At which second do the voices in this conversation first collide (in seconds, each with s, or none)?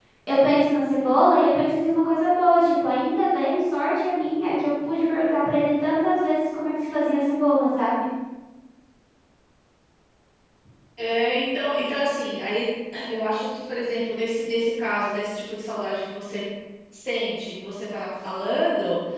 none